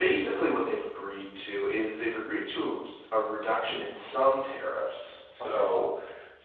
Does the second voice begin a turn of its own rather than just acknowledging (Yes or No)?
No